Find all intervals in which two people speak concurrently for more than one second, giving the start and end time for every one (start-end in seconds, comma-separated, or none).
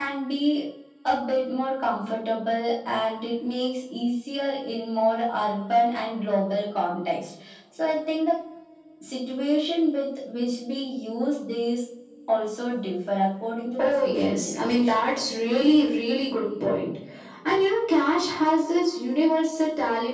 13.8-15.0